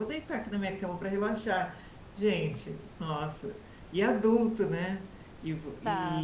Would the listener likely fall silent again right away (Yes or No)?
Yes